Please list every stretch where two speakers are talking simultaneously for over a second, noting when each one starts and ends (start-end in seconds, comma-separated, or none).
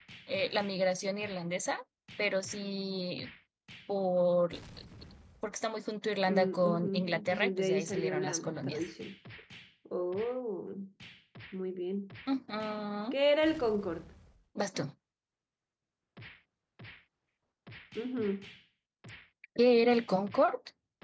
6.3-8.8